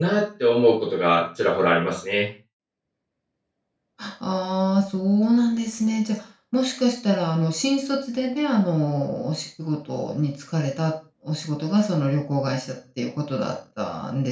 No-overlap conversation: Yes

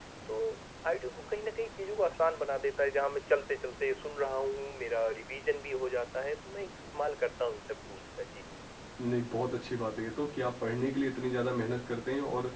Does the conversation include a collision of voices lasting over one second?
No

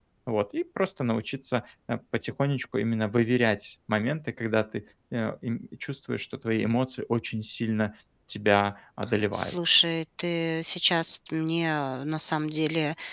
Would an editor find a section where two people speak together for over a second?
No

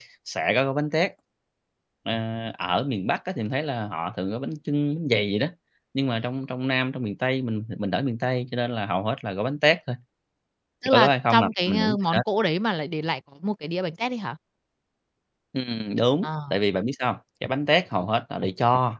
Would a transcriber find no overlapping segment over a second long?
No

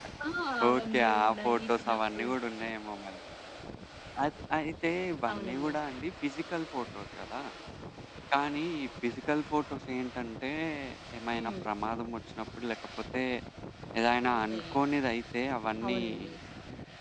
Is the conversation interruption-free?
No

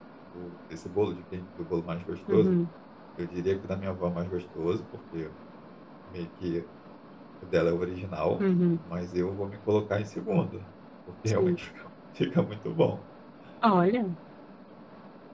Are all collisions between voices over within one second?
Yes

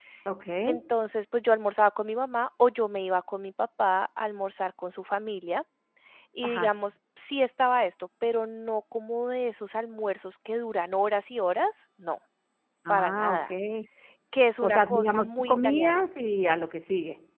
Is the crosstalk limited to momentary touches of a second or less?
No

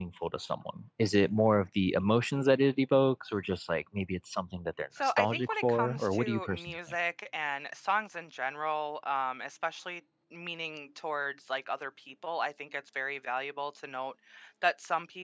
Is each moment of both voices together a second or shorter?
No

